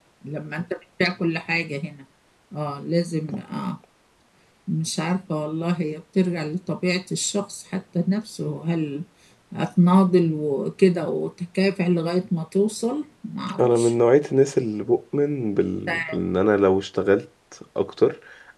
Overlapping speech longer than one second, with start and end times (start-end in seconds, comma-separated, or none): none